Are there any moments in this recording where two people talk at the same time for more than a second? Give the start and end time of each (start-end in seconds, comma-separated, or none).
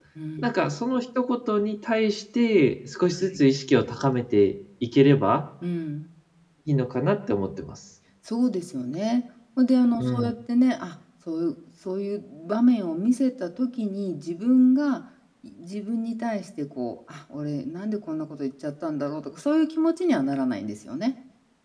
none